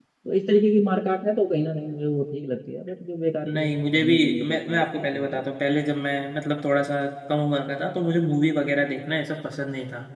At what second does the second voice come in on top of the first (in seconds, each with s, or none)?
3.5 s